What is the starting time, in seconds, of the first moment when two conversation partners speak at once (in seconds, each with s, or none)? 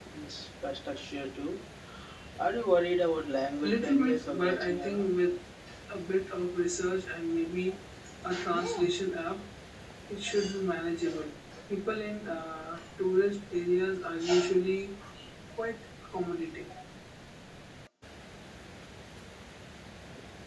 3.6 s